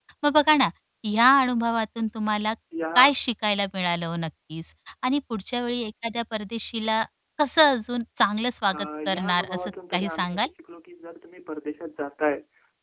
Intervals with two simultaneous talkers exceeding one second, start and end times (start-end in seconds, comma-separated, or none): 8.7-10.5